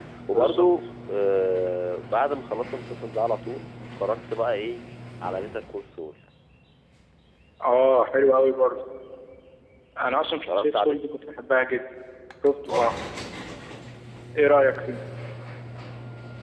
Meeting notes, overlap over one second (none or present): none